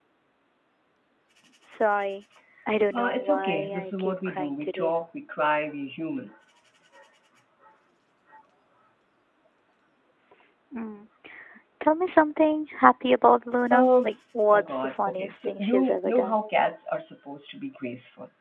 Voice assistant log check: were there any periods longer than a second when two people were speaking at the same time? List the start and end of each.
3.0-4.9, 14.5-16.4

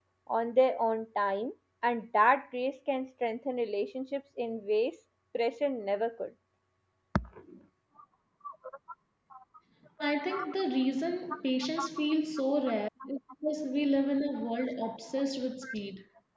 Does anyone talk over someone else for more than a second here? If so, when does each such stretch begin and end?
none

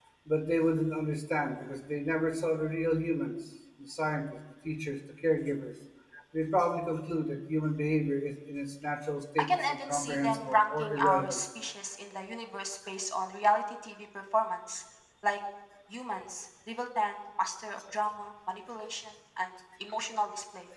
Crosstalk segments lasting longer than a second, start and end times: 9.4-11.4

